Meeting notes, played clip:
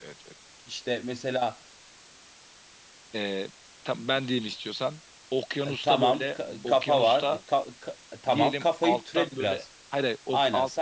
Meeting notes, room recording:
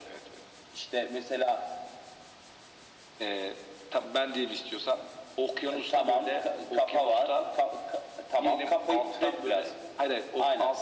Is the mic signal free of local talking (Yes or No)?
Yes